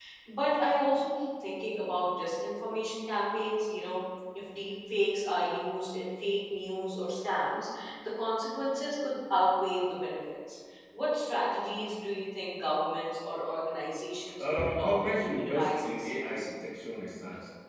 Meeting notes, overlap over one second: present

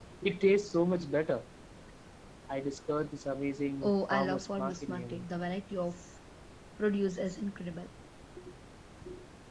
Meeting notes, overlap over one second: present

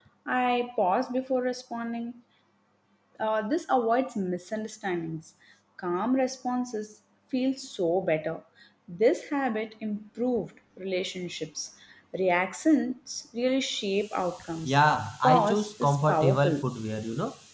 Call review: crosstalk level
present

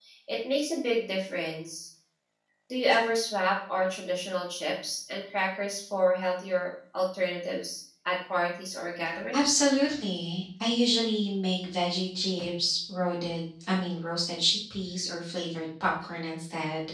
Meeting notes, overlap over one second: none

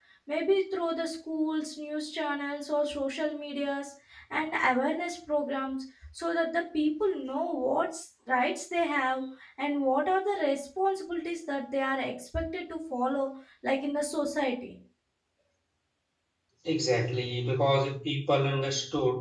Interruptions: none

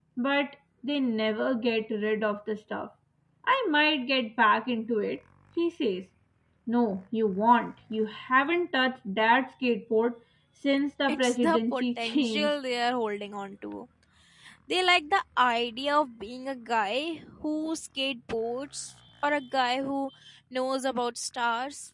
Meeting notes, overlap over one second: present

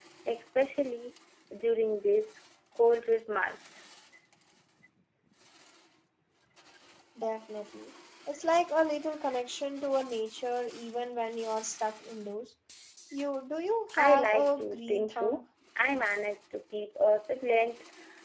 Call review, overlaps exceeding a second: present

